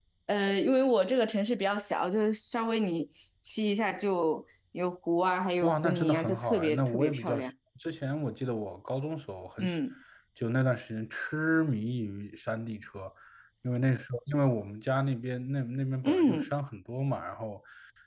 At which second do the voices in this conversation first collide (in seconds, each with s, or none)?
5.6 s